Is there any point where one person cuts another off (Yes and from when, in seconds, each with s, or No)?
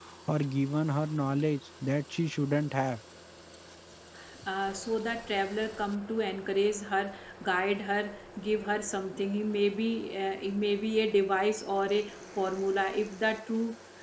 No